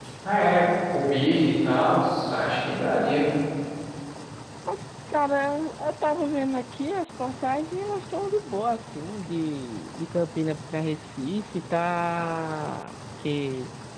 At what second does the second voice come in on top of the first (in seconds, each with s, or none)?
none